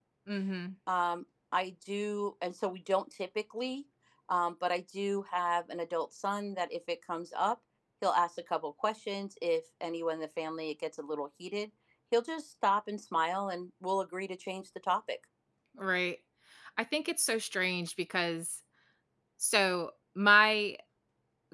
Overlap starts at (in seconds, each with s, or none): none